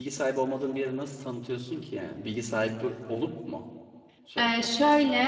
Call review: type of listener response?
taking over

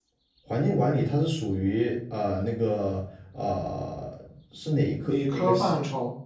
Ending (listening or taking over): taking over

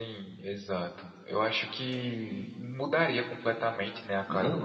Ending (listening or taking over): taking over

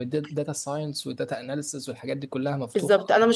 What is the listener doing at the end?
taking over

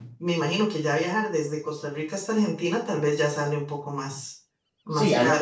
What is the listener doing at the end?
taking over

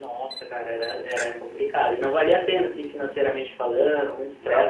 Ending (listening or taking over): listening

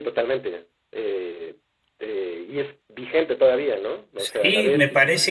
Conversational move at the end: taking over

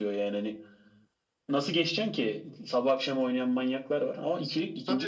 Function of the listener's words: taking over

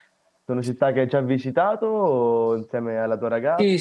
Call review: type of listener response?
taking over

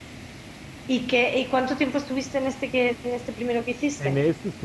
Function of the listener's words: taking over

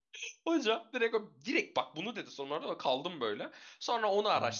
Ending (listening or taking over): listening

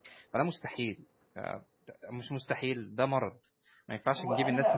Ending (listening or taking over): taking over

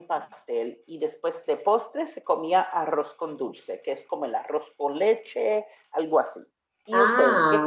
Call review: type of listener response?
taking over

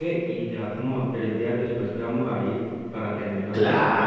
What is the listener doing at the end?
taking over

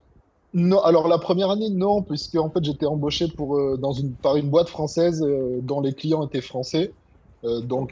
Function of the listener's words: listening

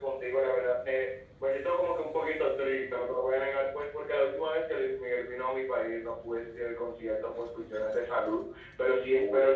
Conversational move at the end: listening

